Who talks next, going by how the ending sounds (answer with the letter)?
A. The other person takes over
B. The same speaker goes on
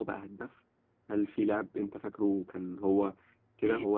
A